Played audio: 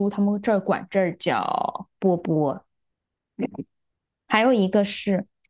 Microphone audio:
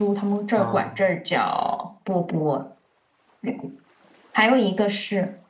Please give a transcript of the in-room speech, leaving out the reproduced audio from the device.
啊、

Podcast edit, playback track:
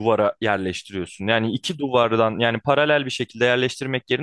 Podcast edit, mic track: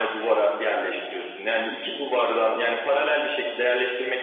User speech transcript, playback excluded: none

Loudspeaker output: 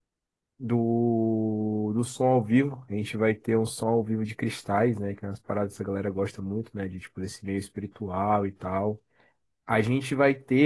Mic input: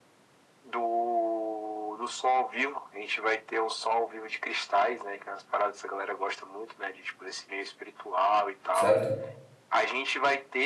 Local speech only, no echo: certo?

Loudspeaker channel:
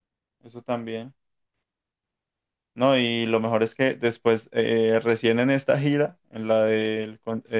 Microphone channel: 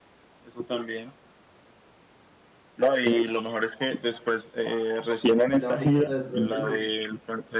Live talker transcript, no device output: la fiesta de pronto no.

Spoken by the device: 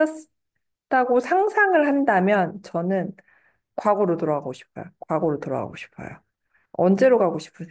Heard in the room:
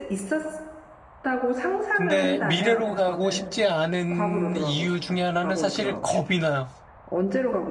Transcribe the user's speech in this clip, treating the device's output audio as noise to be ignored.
근데 미래로 가고 싶지 않은 이유 중에 하나는 사실 겁이 나요.

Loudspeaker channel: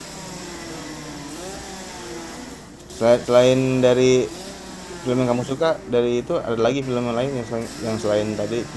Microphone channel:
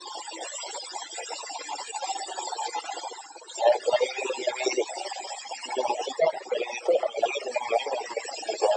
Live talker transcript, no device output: none

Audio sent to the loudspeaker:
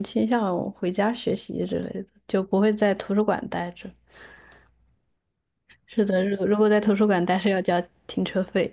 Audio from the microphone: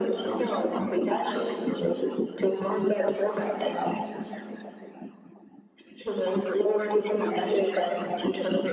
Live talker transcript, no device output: none

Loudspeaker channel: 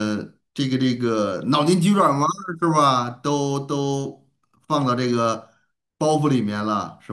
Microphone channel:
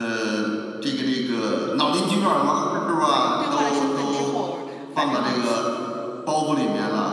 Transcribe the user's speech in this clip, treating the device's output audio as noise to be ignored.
对，兑换了身份之后，反正，

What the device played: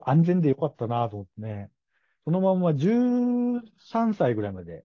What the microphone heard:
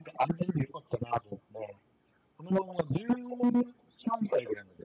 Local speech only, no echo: none

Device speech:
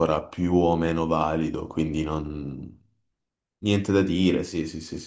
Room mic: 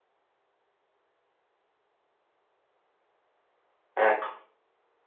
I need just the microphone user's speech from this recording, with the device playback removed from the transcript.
Ecco.

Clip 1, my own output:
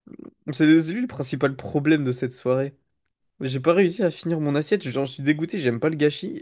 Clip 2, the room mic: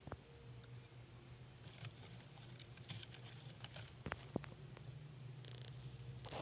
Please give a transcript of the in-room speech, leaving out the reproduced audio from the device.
none

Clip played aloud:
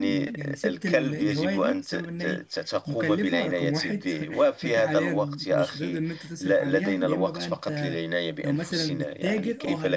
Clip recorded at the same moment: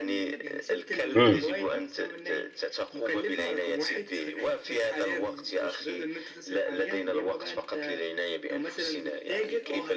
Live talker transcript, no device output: مم.

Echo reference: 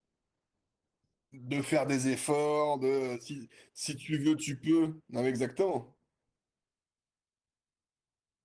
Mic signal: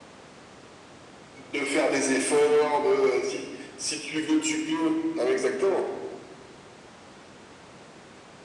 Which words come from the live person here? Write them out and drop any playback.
none

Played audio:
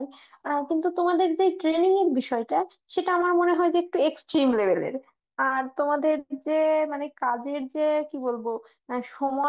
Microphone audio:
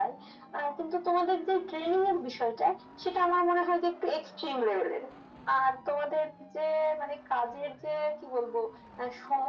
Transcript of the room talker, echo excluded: none

